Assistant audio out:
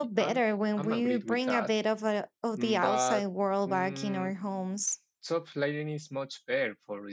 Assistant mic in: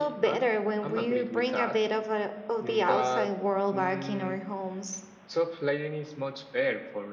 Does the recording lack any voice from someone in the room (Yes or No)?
Yes